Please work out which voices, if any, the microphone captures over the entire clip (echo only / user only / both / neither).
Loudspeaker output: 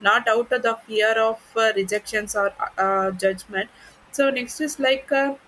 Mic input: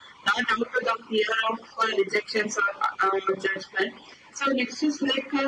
echo only